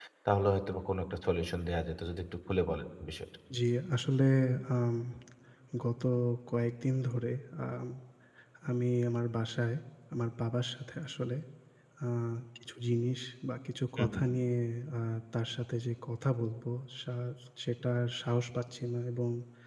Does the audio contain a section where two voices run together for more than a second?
No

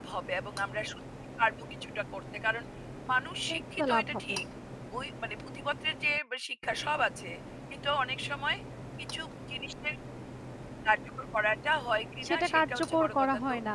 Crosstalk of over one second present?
Yes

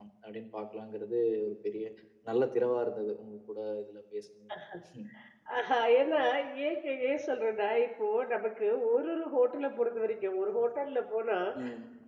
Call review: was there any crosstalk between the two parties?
No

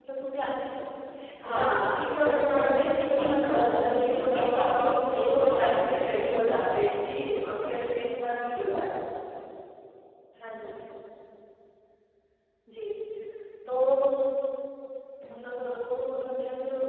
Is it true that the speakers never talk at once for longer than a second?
No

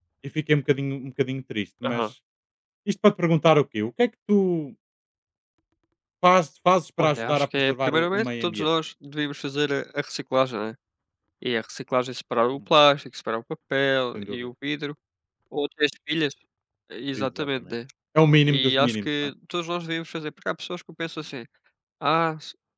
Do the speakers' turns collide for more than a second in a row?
Yes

